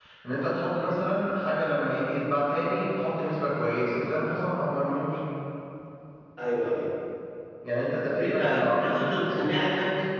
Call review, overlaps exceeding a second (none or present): present